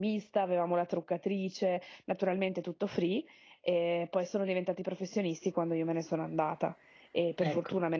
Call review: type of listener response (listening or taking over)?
listening